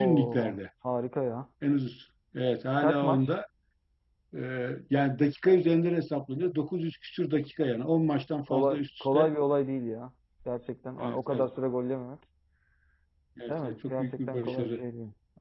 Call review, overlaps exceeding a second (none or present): present